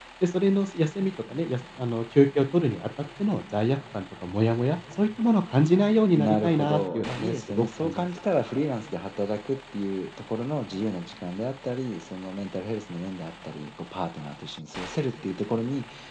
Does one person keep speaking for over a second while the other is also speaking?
Yes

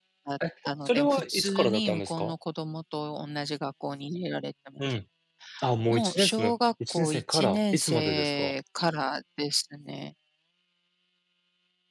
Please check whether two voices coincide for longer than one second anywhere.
Yes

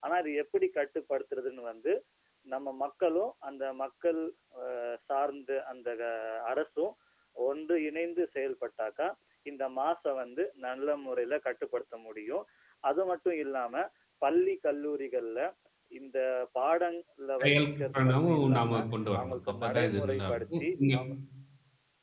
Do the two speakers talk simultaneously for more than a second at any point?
Yes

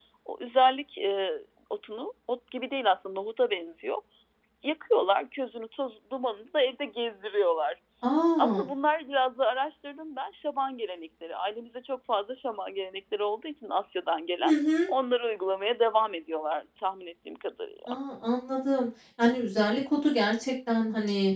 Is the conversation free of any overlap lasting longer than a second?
Yes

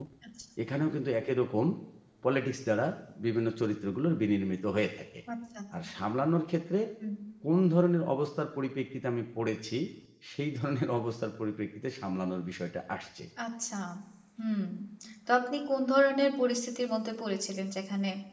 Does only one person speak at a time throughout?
Yes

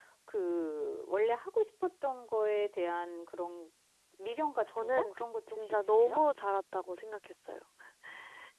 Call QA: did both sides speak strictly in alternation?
No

